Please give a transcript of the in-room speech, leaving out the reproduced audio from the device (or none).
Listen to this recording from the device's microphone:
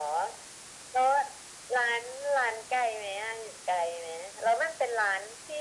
none